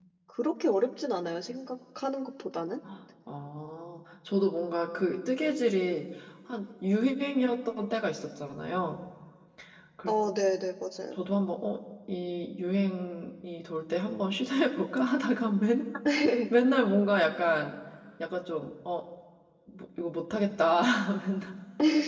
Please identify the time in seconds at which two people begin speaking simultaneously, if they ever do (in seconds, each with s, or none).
none